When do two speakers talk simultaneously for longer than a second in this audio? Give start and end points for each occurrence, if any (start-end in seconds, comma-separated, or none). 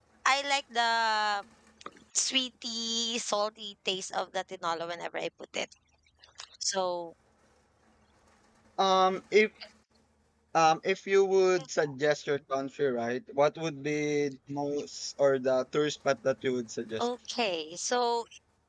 none